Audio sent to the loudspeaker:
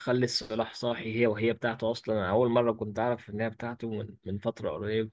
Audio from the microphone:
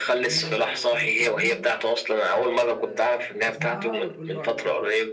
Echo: present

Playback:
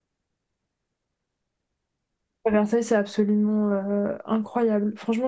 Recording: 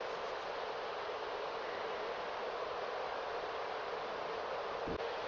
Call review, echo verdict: none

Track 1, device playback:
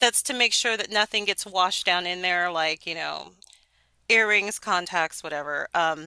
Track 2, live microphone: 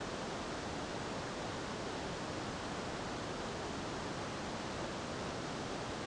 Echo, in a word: none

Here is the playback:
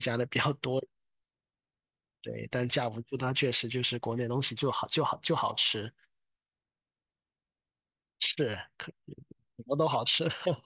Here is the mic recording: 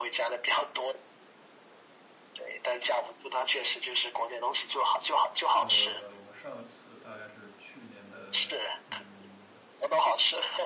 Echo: present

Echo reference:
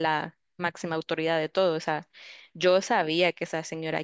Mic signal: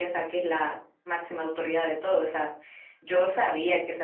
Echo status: present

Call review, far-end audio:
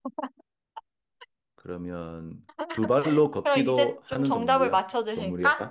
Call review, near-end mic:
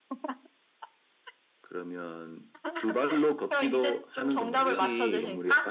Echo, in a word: present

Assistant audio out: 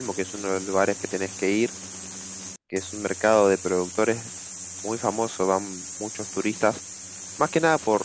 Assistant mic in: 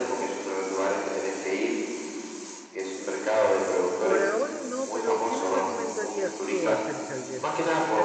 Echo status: present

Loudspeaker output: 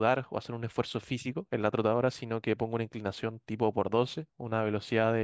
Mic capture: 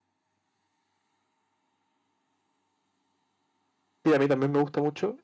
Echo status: none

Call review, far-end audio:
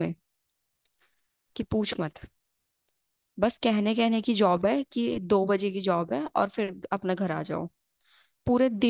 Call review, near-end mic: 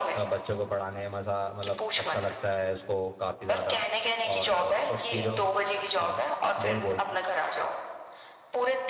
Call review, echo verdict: present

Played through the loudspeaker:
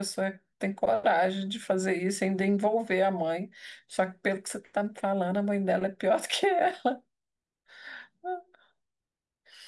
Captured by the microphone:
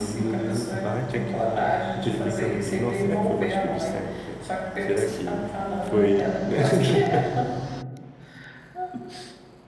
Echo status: present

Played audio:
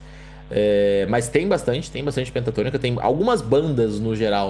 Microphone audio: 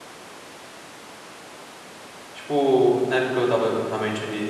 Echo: none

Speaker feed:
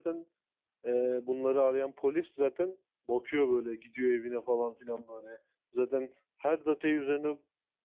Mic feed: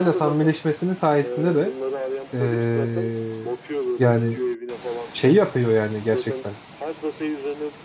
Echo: present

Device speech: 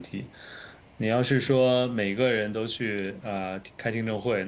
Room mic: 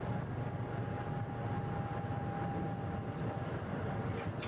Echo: none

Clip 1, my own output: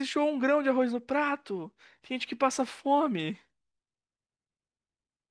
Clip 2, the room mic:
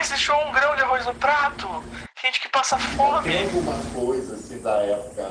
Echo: present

